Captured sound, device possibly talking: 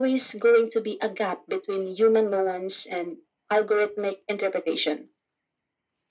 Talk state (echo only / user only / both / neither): echo only